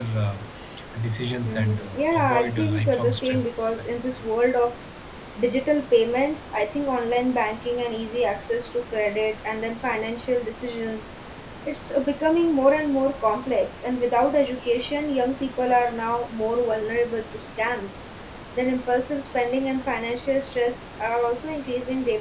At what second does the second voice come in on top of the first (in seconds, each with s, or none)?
1.4 s